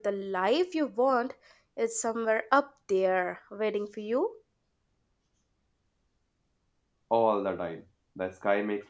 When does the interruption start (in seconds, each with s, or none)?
none